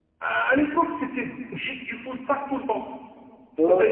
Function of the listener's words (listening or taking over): listening